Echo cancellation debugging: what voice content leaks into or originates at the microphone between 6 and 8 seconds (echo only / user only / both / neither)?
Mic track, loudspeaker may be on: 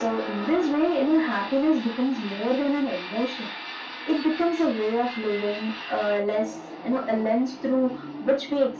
echo only